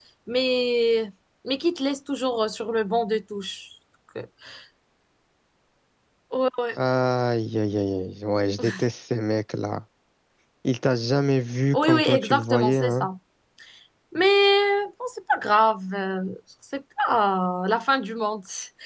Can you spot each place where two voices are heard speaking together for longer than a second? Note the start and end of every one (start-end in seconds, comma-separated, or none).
11.7-13.1